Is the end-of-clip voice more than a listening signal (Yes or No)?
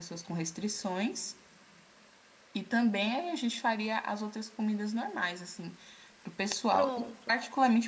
No